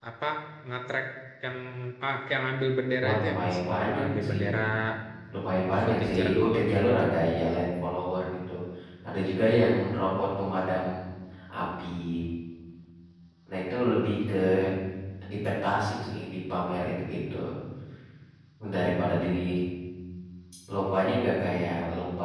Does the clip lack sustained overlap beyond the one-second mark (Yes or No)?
No